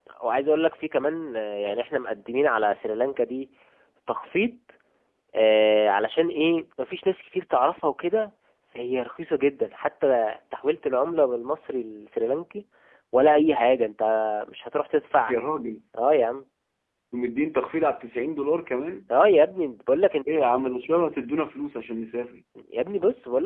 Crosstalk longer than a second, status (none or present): none